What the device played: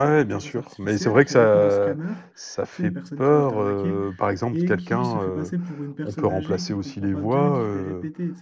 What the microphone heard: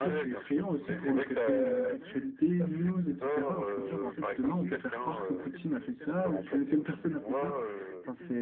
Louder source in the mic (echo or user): user